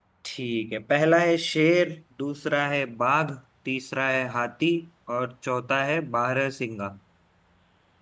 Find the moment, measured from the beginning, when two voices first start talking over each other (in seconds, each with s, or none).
none